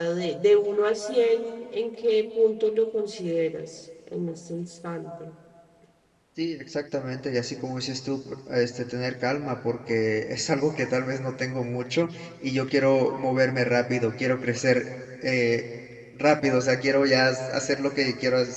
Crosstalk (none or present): none